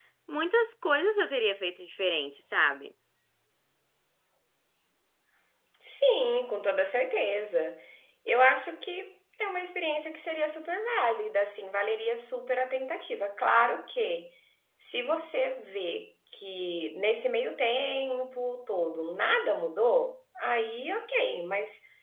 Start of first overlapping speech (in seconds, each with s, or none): none